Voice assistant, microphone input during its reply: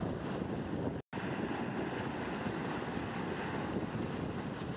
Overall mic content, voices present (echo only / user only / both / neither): neither